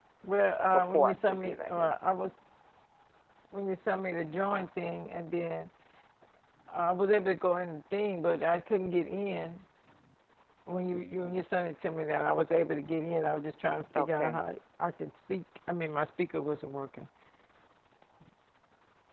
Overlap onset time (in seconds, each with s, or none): 0.7 s